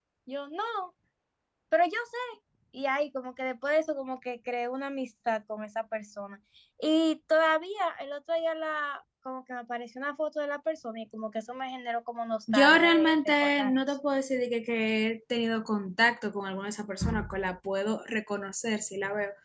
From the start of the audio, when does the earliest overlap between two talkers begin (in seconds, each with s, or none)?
12.5 s